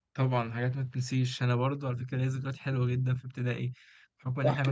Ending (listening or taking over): listening